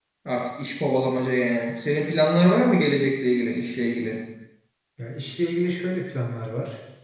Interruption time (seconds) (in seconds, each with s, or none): none